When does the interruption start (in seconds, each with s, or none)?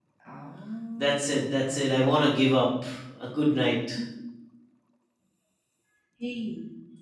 1.0 s